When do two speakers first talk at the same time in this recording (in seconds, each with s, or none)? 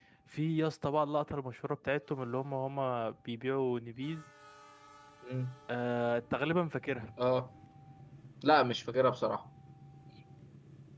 none